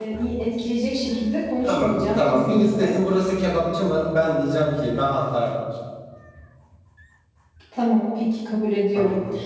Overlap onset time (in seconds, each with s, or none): 1.6 s